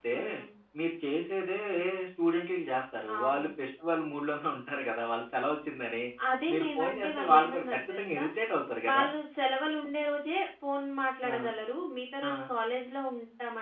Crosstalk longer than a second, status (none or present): present